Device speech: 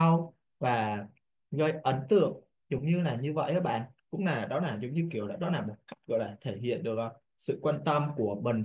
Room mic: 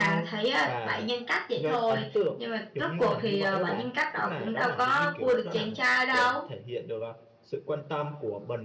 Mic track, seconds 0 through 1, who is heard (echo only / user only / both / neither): both